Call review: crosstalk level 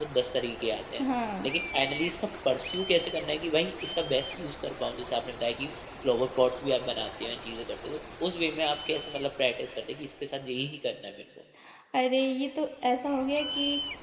none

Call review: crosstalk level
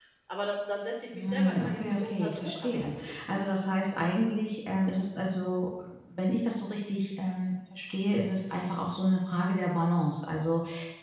present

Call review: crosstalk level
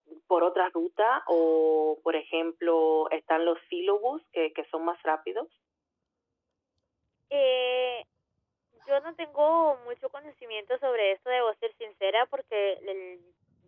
none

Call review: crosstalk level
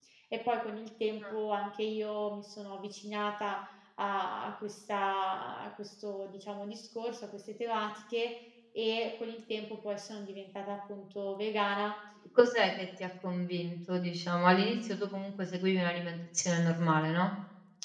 none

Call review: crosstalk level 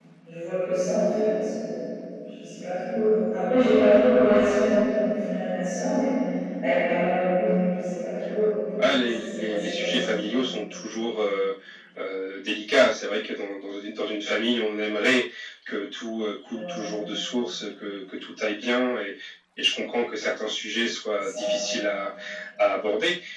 present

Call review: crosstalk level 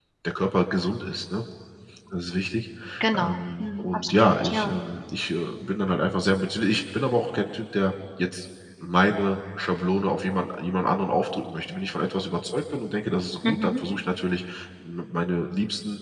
present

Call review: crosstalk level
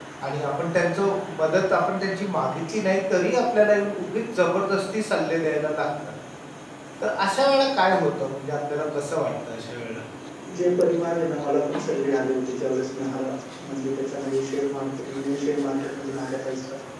none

